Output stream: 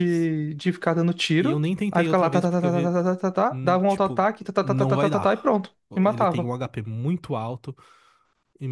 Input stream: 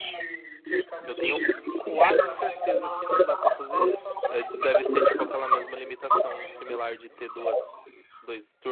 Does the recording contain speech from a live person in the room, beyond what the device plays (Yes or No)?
Yes